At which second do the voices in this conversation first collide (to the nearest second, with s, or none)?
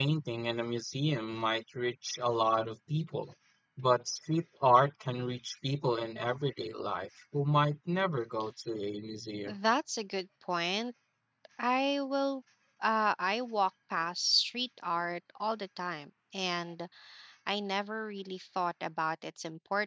none